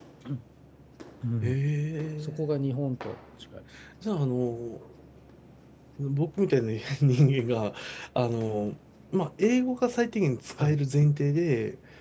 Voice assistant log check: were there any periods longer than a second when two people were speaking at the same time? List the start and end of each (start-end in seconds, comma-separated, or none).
none